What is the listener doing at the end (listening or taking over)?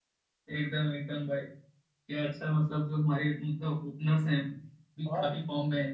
listening